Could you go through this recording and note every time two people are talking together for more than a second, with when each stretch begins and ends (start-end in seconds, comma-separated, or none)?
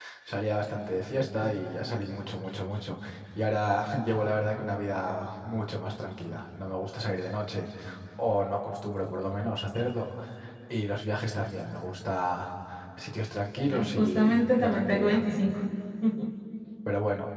13.7-15.2